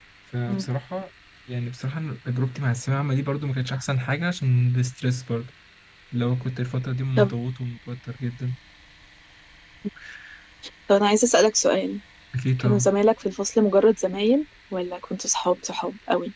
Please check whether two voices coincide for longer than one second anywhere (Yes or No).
No